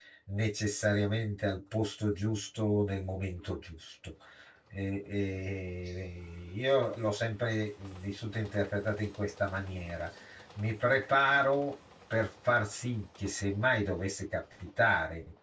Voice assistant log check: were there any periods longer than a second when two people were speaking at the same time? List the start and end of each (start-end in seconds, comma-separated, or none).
none